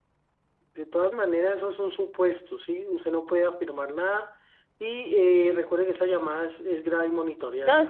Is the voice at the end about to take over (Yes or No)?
Yes